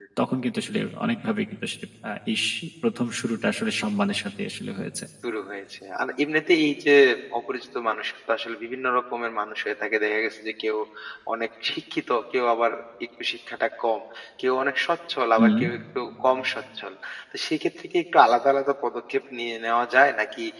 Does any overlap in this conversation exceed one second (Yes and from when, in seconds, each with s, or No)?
No